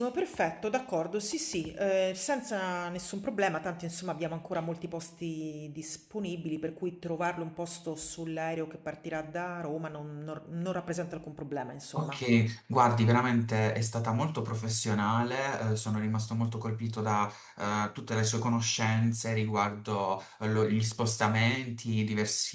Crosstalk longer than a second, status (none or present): none